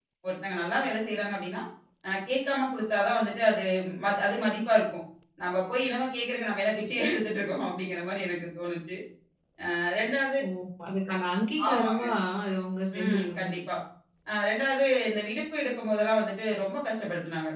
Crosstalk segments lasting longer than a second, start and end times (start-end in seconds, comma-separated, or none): none